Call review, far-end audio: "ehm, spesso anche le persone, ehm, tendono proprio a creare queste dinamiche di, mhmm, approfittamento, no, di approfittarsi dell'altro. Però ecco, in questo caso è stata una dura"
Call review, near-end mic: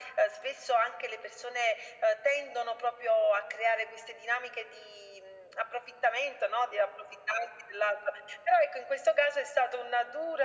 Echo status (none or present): present